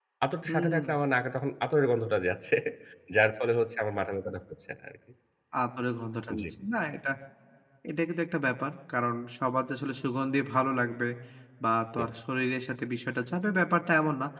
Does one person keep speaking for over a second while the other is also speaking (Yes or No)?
No